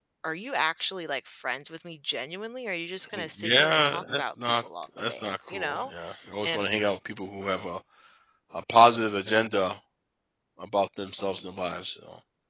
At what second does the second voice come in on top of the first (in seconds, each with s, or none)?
3.1 s